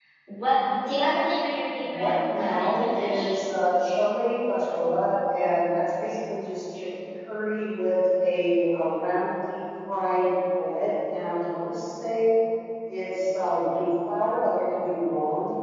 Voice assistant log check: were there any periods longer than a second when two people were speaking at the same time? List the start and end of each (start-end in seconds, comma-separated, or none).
1.8-3.3